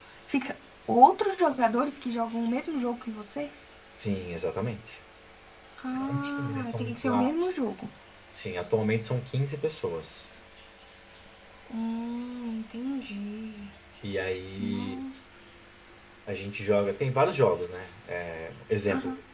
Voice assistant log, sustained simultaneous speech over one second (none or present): present